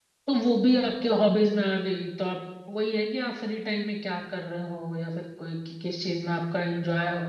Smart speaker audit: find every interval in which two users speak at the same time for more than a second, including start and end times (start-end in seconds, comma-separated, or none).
none